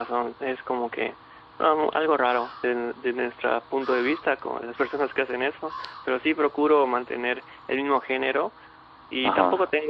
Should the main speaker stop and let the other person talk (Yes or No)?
No